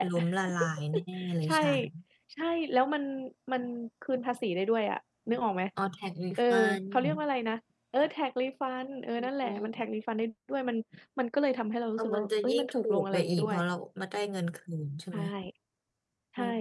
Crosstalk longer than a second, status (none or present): present